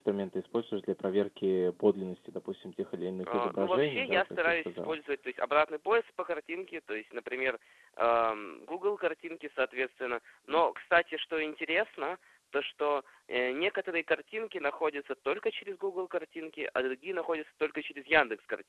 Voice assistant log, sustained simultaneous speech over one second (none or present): present